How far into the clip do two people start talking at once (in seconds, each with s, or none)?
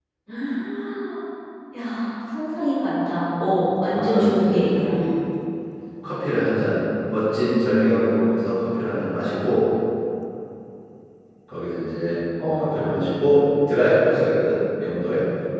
3.6 s